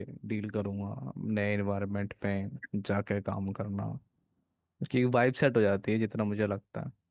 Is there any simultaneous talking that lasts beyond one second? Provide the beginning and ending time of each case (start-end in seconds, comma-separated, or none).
none